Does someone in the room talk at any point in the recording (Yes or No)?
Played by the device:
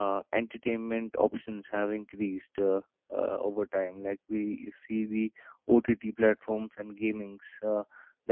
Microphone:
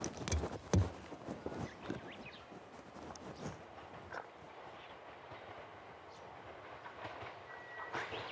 No